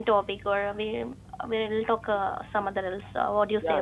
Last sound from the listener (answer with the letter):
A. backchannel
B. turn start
B